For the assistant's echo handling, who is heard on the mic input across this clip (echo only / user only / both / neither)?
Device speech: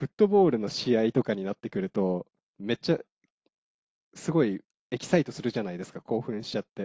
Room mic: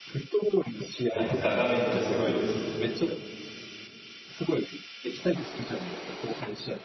both